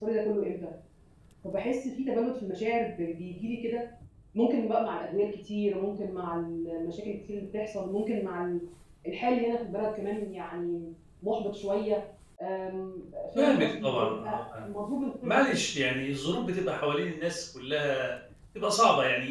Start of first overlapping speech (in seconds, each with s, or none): 13.4 s